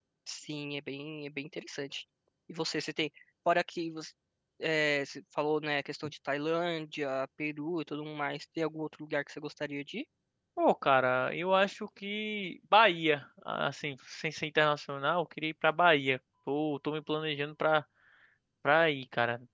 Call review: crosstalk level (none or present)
none